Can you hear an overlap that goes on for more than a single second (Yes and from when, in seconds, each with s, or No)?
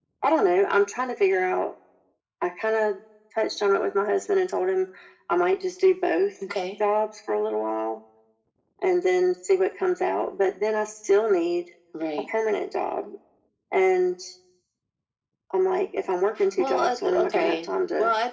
Yes, from 16.4 s